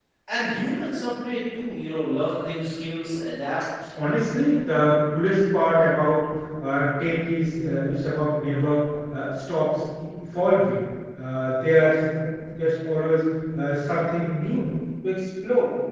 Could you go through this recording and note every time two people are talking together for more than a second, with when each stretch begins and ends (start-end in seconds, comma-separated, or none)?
none